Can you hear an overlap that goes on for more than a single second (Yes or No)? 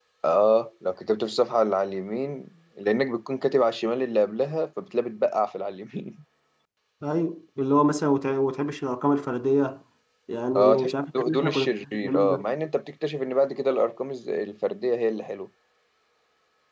Yes